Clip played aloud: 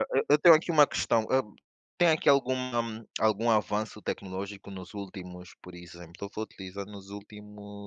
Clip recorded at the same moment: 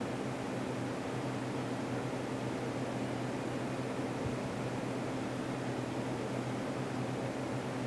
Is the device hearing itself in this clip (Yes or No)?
No